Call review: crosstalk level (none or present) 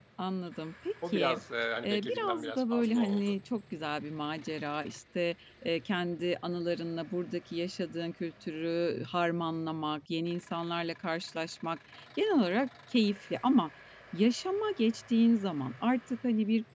present